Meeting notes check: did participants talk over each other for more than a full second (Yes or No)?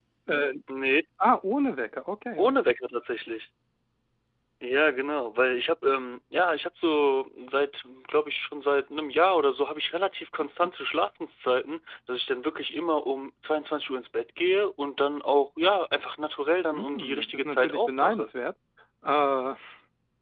Yes